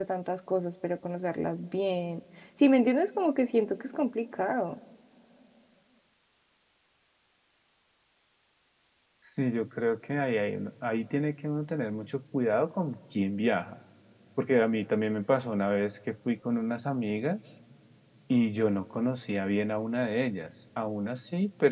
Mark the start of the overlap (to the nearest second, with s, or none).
none